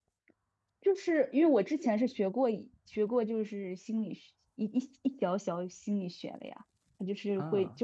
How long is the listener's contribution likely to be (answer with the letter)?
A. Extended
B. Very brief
B